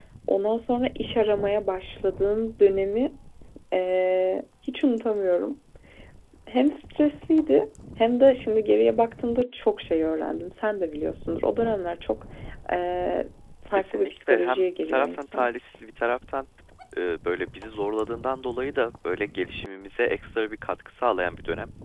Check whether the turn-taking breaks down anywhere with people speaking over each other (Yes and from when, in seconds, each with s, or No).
Yes, from 13.8 s